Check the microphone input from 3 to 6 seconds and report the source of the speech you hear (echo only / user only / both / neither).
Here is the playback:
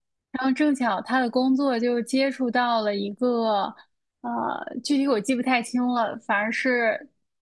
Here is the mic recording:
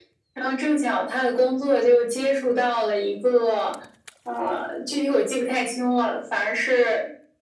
echo only